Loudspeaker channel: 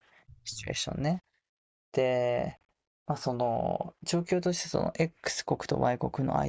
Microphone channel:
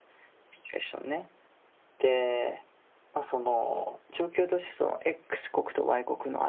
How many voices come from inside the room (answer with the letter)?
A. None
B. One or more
A